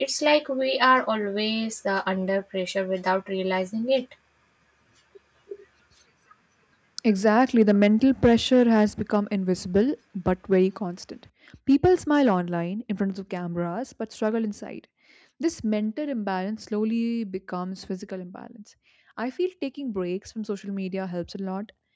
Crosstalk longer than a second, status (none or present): none